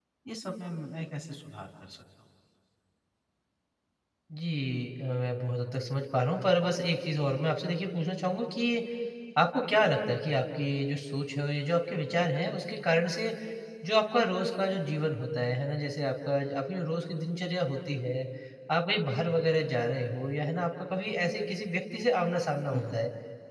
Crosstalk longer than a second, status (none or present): none